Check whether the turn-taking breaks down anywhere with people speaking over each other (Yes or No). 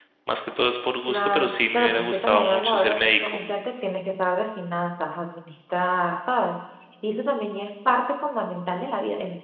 Yes